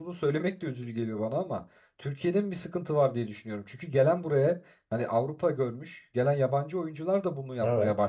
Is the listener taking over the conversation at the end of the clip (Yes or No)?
No